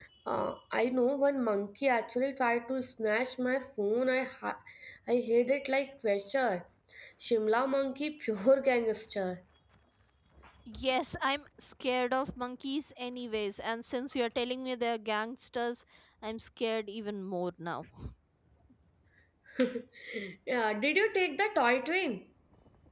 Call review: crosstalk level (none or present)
none